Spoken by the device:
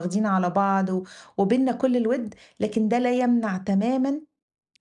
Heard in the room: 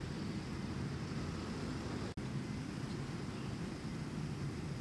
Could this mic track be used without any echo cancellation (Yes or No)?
Yes